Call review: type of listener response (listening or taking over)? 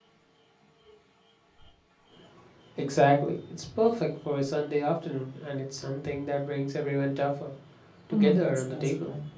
taking over